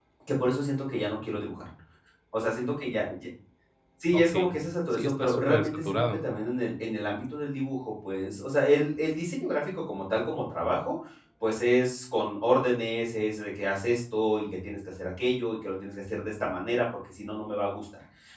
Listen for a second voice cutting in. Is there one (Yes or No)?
Yes